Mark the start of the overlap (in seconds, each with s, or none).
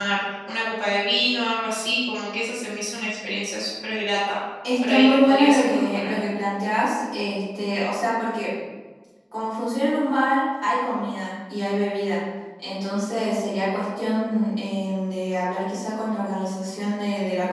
4.6 s